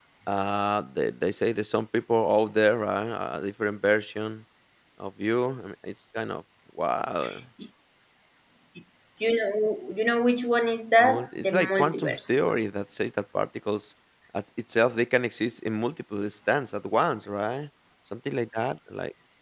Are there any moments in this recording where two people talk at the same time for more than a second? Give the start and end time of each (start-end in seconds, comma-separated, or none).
11.0-12.4